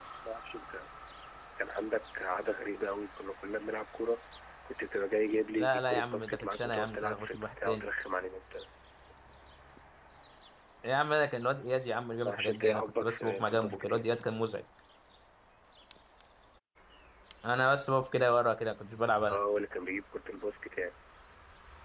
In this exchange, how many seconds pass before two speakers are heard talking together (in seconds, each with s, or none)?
5.6 s